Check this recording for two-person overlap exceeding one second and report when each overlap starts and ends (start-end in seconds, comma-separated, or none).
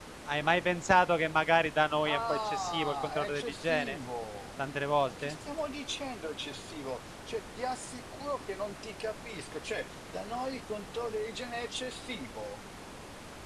2.1-4.0